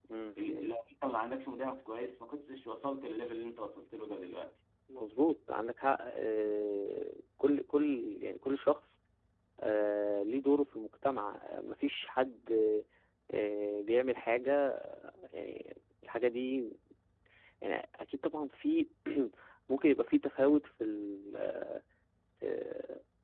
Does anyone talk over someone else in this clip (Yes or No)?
No